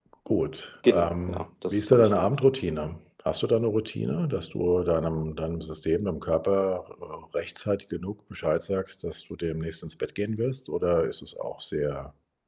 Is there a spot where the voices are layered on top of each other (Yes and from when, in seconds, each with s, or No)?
Yes, from 0.8 s